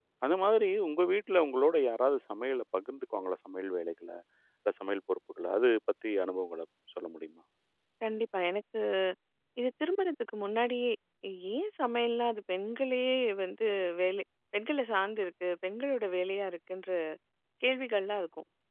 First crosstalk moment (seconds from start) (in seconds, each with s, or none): none